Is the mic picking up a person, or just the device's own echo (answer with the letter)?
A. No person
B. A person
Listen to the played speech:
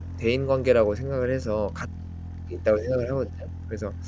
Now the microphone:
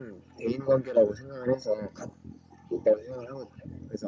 A